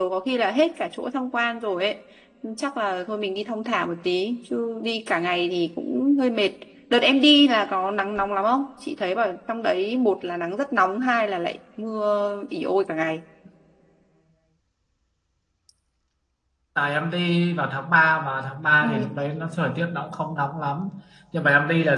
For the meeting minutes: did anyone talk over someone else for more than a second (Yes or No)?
No